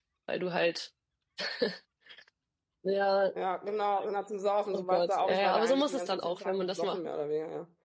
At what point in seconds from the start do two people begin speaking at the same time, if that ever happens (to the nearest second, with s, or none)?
5 s